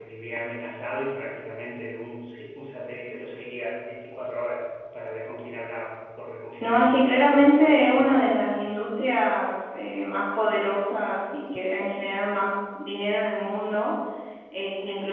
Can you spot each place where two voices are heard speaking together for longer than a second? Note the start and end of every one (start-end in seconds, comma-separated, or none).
6.6-8.3